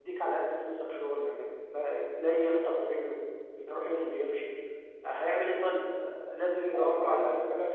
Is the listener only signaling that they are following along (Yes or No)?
No